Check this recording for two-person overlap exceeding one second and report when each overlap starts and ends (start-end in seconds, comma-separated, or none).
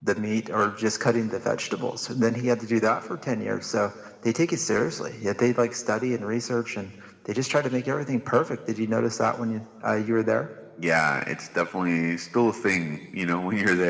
none